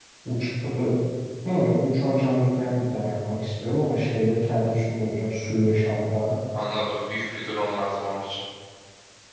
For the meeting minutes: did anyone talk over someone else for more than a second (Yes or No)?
No